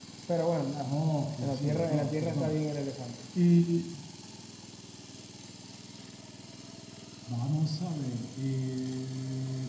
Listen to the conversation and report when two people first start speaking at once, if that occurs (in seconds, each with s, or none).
1.4 s